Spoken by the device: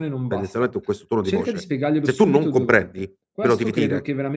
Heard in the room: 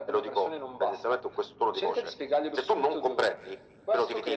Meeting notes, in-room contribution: none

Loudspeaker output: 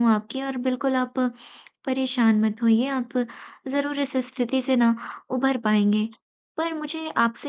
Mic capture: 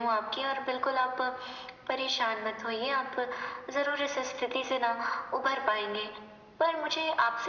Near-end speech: none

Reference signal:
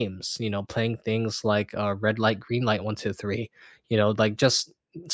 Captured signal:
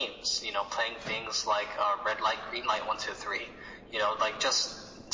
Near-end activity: none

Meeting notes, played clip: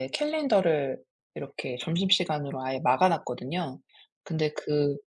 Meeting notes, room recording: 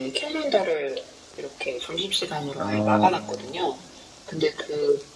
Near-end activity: present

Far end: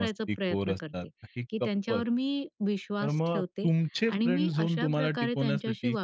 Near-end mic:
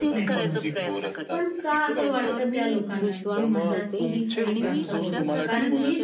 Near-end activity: present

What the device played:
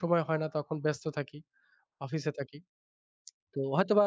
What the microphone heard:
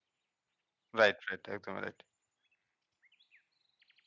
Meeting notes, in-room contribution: present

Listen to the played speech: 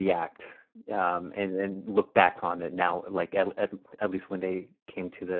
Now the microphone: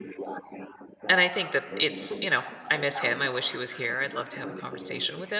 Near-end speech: present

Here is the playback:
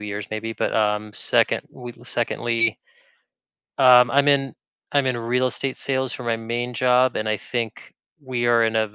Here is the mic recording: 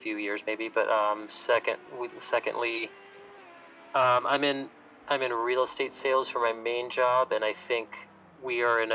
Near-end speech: none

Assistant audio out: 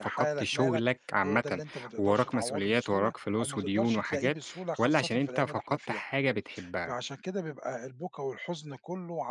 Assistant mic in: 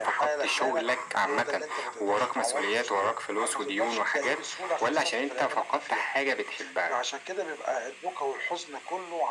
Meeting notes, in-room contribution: none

